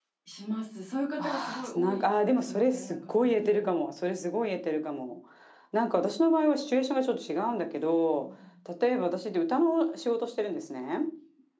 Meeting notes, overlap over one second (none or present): present